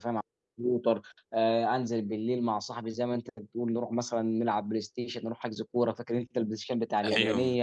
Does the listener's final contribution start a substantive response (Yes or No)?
Yes